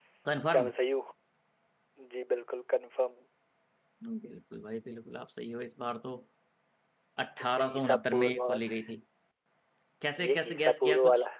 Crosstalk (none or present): present